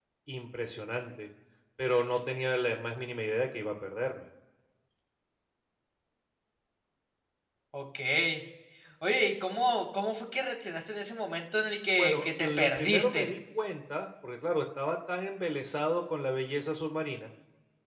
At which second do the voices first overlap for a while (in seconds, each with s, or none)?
12.0 s